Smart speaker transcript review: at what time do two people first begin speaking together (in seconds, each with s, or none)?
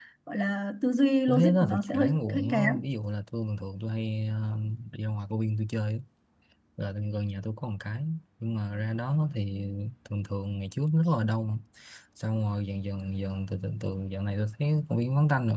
1.3 s